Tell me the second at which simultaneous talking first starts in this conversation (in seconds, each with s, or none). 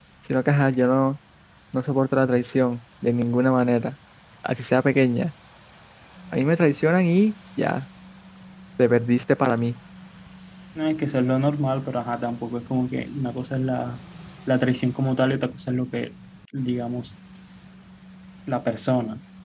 none